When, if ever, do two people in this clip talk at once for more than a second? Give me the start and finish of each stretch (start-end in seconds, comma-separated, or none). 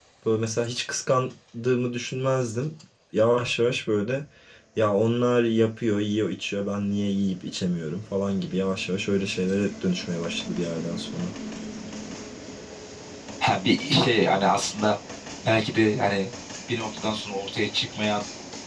none